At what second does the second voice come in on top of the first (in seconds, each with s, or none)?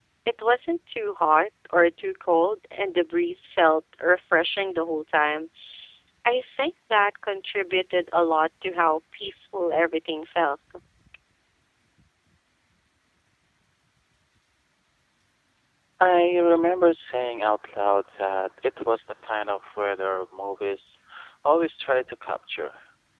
none